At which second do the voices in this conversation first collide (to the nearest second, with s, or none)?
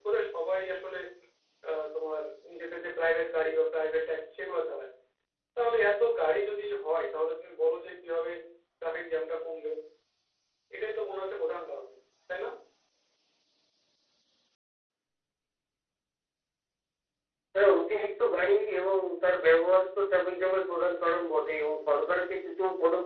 none